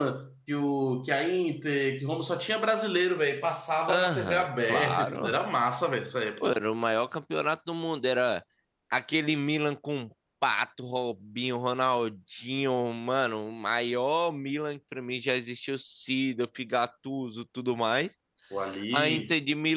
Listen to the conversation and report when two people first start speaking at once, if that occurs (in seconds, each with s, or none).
3.9 s